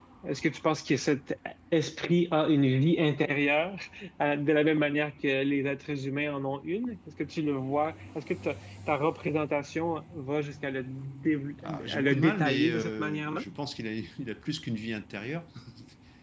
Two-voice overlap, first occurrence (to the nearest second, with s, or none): 12 s